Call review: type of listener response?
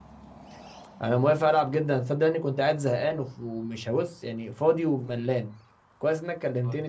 listening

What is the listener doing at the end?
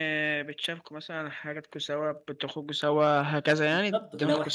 taking over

